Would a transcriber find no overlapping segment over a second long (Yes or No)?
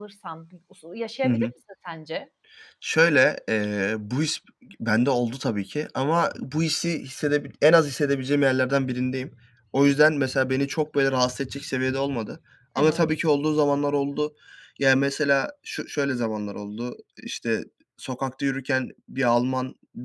Yes